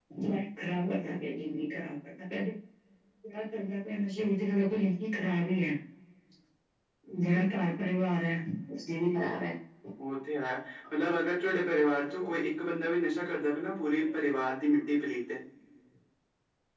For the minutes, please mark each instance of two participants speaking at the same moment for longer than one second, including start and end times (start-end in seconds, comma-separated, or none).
none